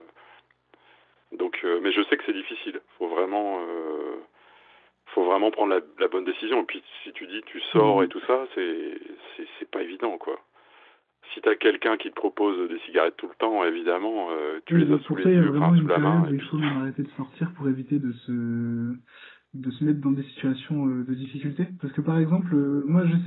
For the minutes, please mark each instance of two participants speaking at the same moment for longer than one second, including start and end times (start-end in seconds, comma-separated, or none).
14.7-16.6